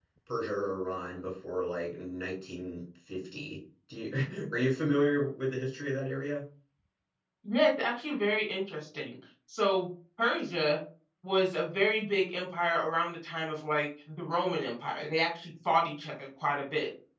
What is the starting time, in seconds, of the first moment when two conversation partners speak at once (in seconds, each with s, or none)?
none